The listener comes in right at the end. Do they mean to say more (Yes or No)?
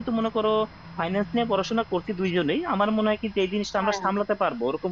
No